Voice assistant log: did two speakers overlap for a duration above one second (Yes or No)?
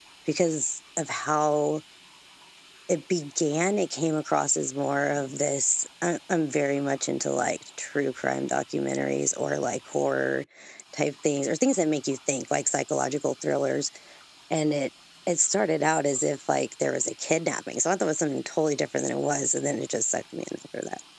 No